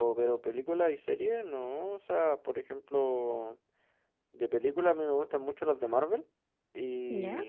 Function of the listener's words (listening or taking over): listening